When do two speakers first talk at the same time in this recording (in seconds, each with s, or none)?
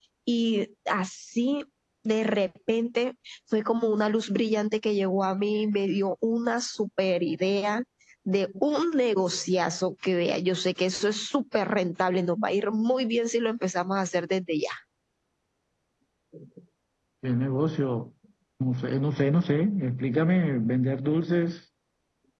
none